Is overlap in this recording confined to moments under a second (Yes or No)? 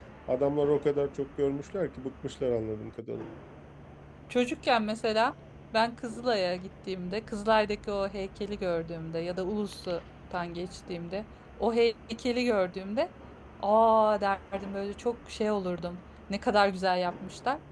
Yes